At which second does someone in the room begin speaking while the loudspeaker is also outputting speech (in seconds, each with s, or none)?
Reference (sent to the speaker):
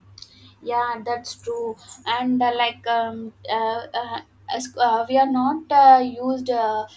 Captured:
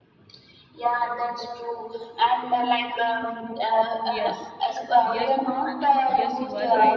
4.0 s